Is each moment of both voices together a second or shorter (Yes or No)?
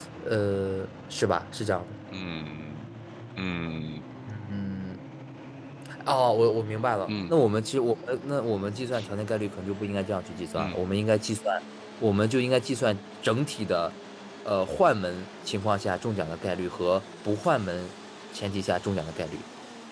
Yes